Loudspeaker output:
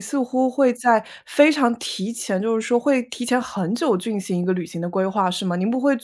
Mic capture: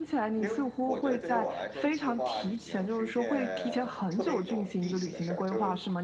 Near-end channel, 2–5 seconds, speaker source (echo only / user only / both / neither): both